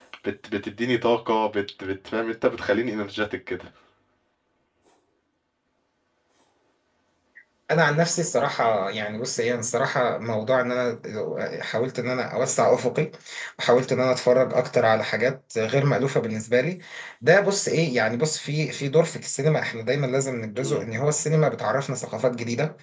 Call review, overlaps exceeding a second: none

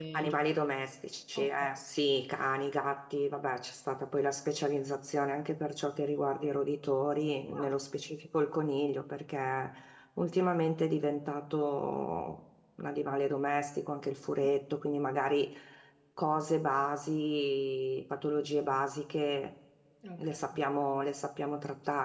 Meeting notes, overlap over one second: none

